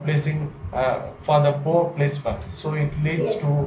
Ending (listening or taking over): listening